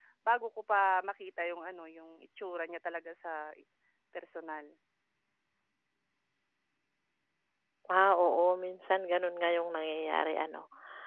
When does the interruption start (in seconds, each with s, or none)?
none